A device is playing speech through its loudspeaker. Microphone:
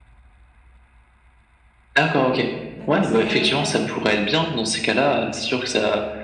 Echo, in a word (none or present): present